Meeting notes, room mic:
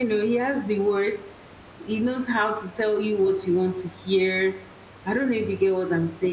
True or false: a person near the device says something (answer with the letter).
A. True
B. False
B